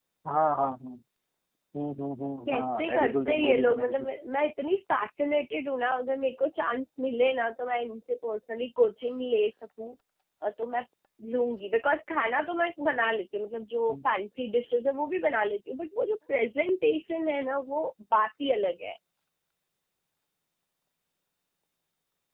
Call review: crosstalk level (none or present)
present